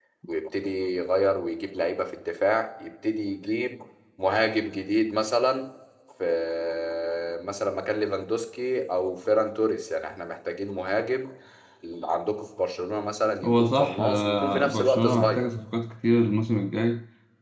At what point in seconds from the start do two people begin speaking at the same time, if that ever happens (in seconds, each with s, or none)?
13.4 s